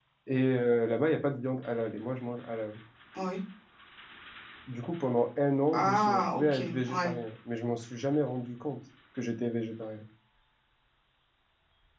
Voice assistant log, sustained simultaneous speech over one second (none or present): present